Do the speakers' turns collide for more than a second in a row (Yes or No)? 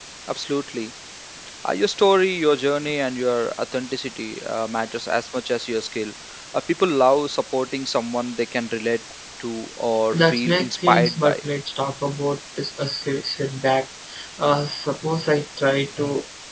Yes